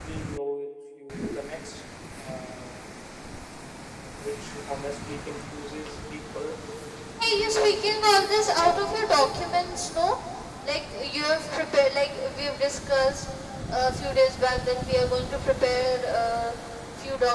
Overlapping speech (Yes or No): Yes